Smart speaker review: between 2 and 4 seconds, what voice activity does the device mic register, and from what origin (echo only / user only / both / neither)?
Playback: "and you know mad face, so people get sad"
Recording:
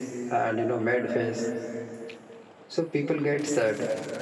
echo only